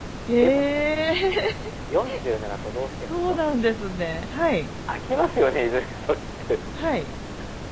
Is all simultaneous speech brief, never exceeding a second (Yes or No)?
Yes